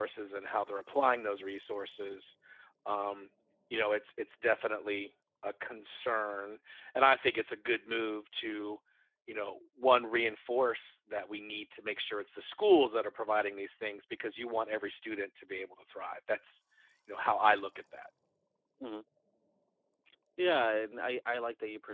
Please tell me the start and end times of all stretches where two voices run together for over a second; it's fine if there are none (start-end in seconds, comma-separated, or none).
none